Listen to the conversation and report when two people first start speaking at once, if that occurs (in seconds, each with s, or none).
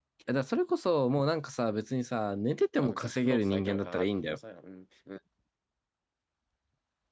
2.8 s